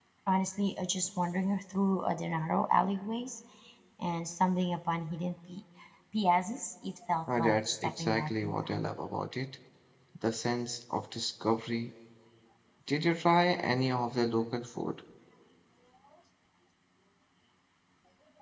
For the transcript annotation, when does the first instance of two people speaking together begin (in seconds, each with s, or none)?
7.3 s